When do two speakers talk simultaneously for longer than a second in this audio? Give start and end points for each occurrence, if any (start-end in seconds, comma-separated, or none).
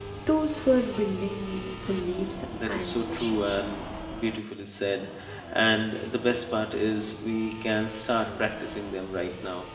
2.7-3.9